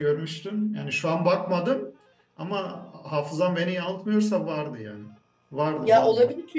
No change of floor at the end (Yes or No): No